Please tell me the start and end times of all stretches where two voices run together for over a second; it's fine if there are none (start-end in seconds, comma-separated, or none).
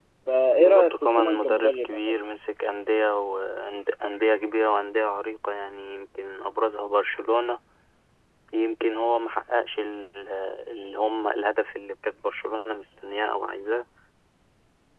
0.6-2.2